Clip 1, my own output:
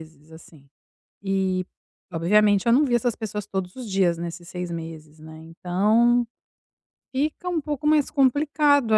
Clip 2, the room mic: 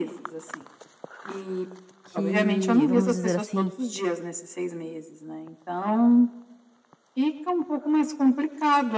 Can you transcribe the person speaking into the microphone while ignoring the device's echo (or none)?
que, vamos dizer assim,